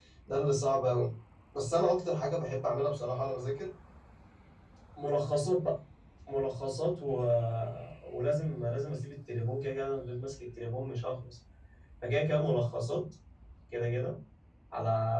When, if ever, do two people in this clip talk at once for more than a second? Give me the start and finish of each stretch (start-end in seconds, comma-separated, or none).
none